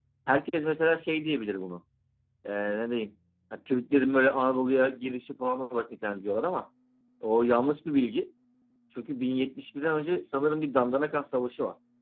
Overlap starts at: none

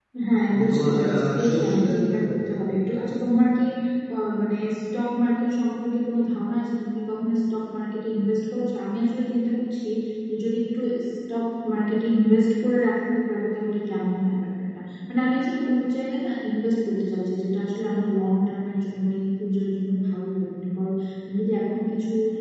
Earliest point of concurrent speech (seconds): 1 s

